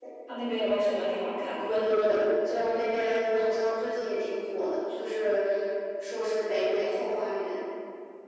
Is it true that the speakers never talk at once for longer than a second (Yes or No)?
Yes